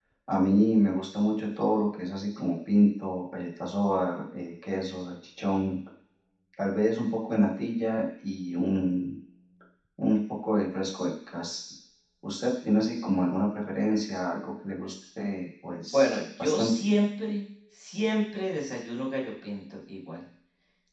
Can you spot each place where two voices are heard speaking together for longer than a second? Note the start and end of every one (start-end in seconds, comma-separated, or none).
15.7-16.9